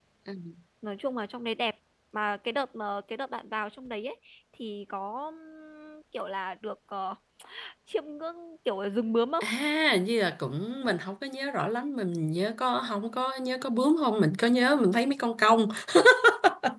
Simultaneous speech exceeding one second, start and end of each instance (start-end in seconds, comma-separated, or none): none